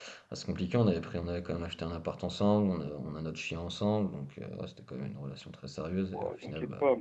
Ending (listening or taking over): taking over